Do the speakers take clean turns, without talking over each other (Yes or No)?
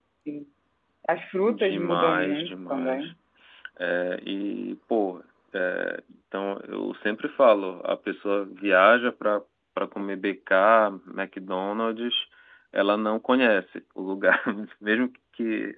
No